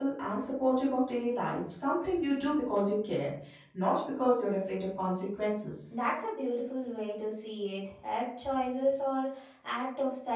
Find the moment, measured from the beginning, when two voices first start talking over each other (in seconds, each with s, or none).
none